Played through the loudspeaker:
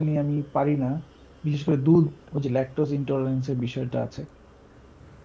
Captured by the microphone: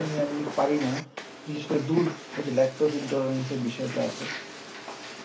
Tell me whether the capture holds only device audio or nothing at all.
Yes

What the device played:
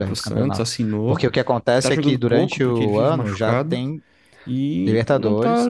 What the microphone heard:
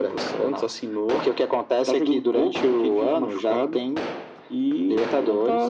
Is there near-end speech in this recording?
No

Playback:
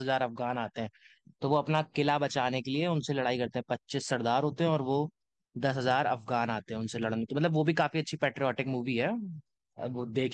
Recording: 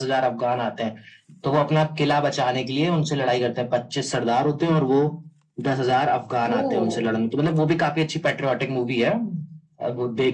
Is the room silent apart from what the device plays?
No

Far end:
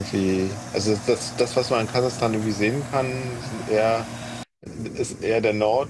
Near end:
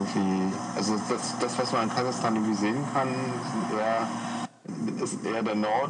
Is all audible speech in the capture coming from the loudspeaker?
Yes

